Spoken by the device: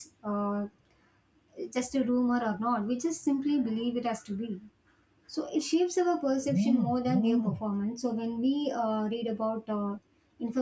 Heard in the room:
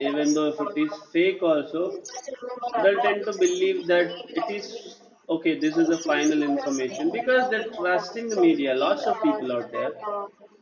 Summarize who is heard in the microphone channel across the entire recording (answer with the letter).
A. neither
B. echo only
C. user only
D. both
D